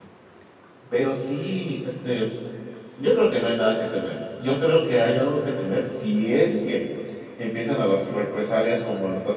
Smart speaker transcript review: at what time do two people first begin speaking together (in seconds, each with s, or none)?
none